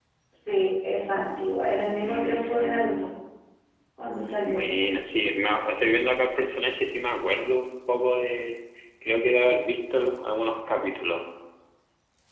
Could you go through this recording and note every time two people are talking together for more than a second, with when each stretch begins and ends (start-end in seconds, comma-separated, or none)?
1.8-3.1